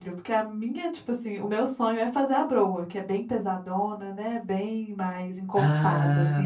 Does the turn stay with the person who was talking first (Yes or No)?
No